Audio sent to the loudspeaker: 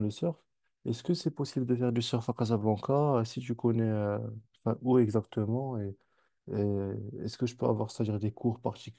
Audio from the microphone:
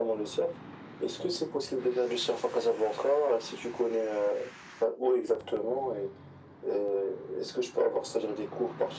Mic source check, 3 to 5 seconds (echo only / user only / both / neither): echo only